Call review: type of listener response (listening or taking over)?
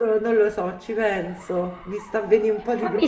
taking over